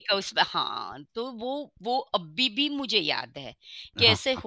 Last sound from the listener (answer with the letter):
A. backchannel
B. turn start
A